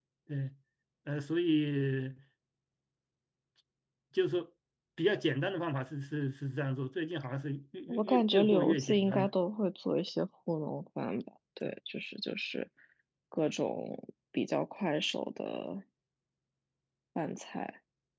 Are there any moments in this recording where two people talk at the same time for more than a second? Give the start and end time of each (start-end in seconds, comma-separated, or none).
7.9-9.3